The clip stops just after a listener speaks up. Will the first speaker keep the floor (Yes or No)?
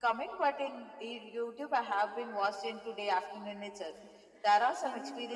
Yes